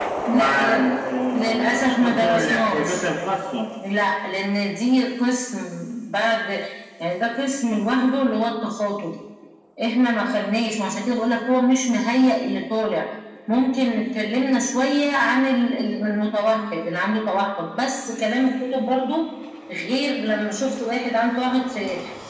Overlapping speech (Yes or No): Yes